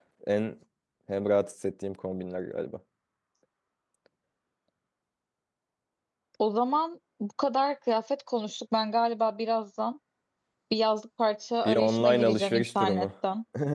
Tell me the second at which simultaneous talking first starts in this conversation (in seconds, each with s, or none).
11.6 s